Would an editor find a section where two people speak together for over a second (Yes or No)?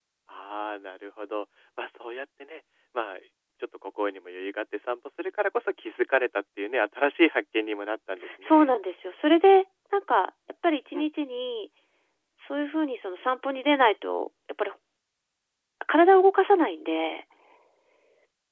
No